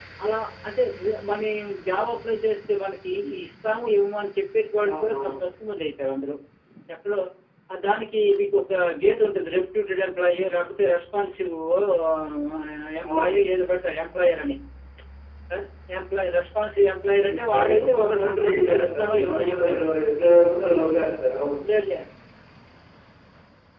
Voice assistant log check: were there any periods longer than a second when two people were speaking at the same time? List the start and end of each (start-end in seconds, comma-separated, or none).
17.4-19.8